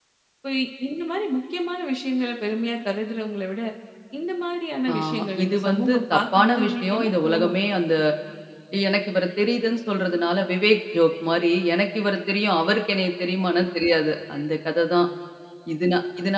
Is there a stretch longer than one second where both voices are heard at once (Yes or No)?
Yes